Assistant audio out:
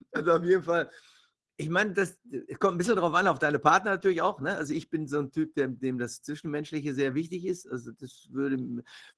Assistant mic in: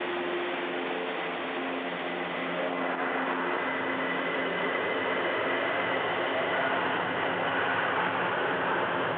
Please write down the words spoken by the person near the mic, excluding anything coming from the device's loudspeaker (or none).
none